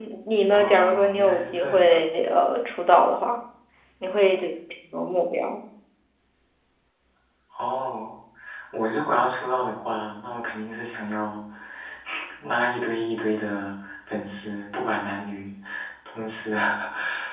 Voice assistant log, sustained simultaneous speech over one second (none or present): present